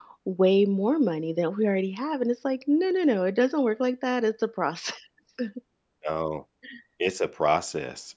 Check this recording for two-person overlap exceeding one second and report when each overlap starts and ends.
none

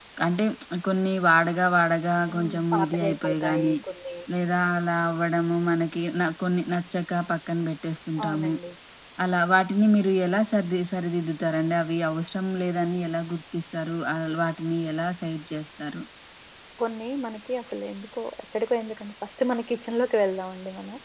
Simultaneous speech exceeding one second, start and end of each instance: 2.3-3.8

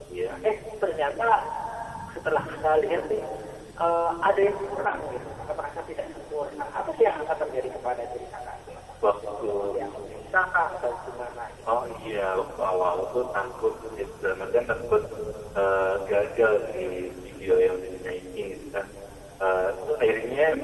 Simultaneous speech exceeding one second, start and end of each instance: none

